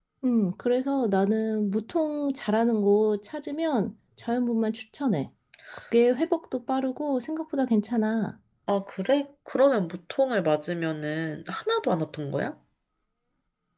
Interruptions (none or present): none